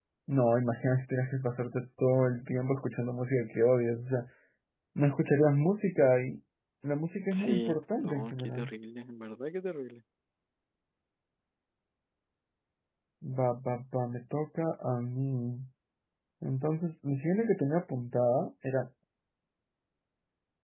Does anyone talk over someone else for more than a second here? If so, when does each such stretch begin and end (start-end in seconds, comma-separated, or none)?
7.3-8.7